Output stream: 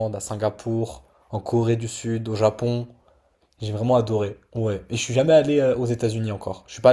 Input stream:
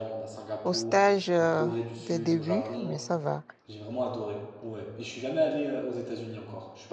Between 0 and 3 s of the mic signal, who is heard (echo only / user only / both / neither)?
both